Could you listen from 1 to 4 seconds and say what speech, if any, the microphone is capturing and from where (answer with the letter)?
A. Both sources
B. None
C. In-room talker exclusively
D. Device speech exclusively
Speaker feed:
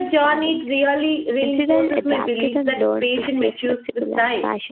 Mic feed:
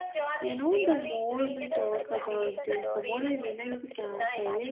A